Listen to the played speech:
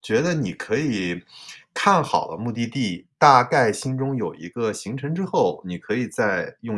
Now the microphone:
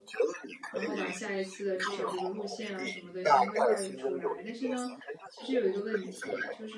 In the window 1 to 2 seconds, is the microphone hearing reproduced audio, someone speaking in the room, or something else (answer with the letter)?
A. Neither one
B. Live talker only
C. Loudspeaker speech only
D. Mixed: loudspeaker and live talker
D